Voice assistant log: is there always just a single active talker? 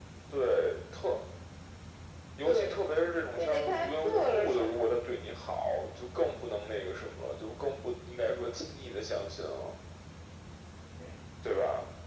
No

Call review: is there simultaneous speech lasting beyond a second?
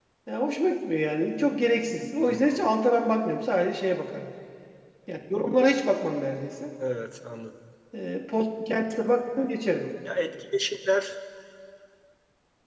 No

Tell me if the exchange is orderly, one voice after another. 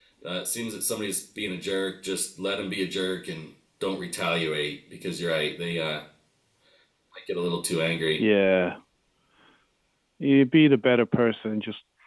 Yes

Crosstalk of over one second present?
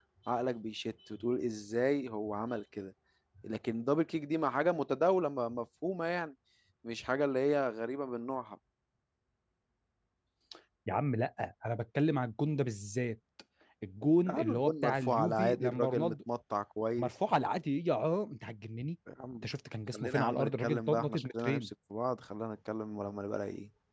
Yes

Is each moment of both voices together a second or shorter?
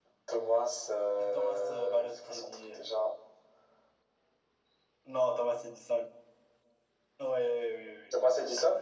No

